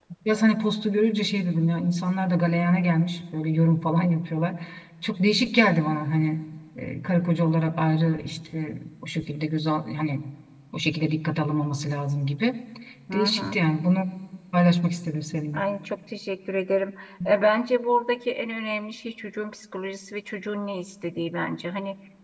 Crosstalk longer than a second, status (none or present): none